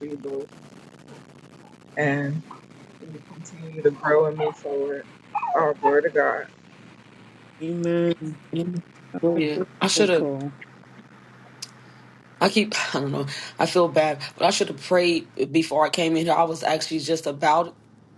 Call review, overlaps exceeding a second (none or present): none